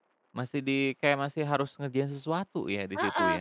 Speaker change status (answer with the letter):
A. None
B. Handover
B